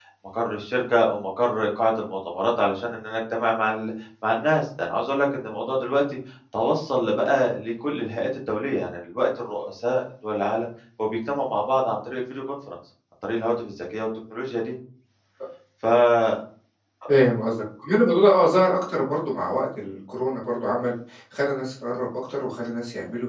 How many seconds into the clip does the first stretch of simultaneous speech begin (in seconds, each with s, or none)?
none